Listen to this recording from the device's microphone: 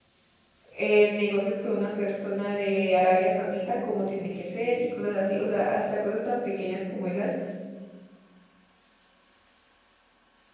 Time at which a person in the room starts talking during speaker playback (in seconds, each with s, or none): 0.7 s